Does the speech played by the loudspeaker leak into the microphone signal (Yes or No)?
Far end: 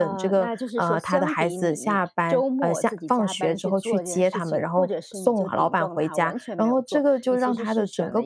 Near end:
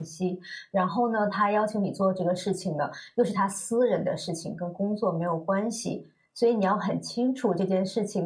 No